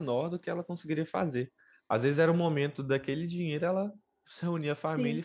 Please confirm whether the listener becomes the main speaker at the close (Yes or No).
No